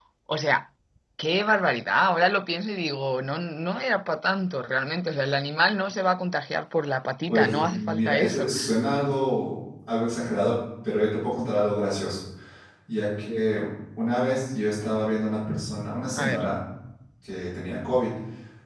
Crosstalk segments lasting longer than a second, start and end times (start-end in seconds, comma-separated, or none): 7.3-8.5